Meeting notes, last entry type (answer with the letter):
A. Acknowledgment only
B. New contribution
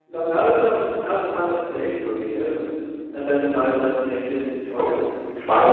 B